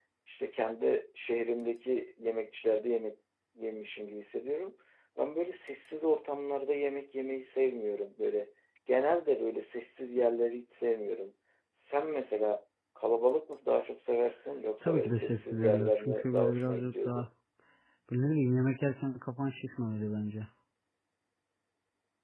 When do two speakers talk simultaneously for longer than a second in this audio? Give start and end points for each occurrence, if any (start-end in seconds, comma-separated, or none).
14.8-17.3